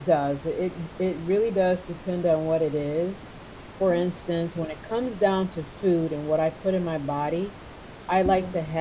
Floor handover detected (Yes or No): No